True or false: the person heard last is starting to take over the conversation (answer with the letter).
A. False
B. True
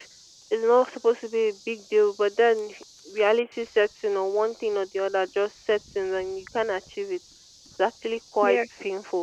A